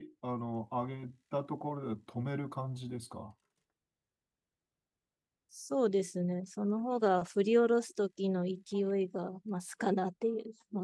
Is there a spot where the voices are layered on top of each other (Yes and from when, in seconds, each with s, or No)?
No